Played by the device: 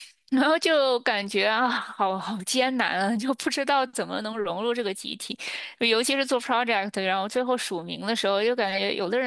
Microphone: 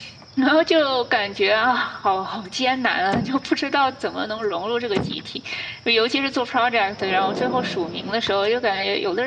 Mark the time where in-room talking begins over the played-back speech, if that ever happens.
none

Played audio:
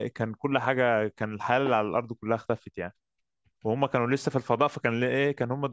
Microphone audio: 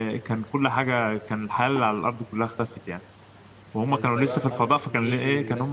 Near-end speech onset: 3.8 s

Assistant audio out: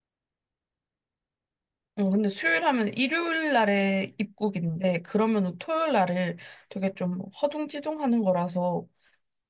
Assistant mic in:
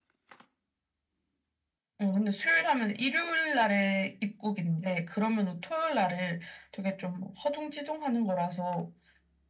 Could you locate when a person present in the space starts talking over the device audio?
none

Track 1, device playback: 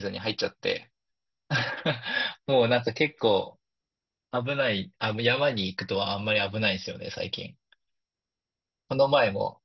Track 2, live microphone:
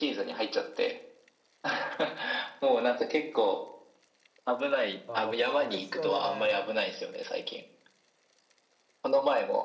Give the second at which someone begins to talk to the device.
5.0 s

